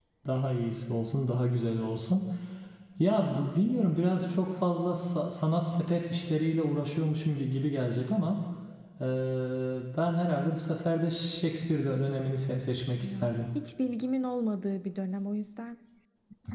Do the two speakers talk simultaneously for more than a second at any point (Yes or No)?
No